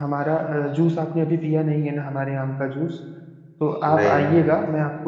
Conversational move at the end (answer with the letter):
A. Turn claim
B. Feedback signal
B